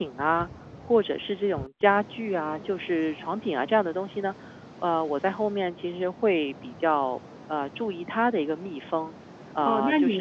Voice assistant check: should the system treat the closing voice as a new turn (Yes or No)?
Yes